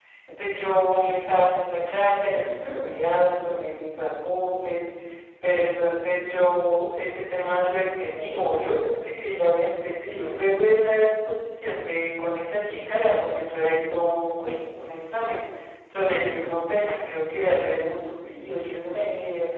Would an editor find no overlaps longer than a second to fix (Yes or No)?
Yes